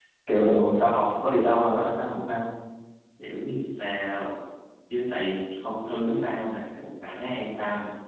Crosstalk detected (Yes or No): No